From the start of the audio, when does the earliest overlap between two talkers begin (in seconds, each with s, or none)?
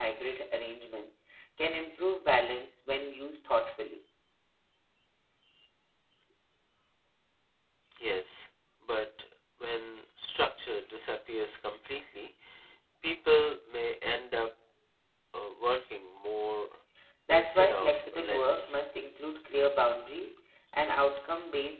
17.3 s